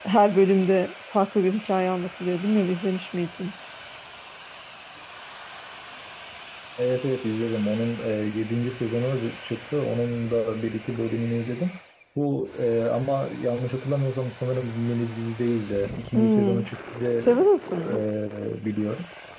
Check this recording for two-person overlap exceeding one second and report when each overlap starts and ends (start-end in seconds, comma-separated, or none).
none